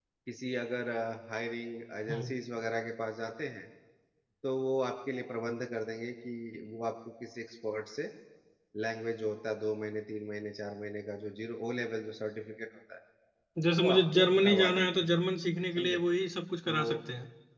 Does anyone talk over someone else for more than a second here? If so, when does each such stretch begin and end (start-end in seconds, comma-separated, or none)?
13.8-15.0